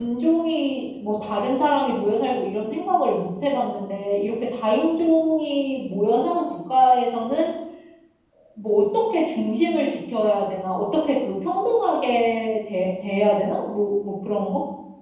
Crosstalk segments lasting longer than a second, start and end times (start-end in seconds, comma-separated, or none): none